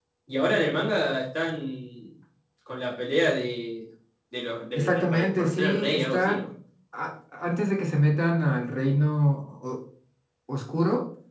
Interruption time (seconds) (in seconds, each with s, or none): 4.8 s